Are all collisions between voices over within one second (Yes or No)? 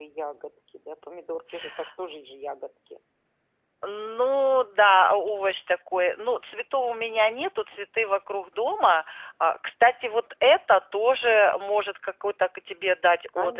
Yes